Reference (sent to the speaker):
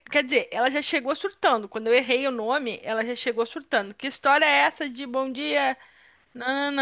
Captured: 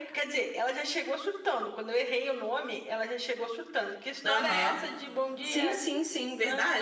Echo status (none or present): present